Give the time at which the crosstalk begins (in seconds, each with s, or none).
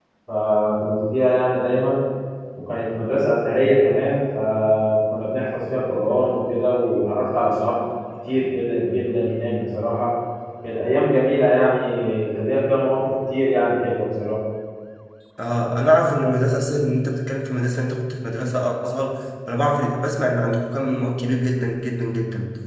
none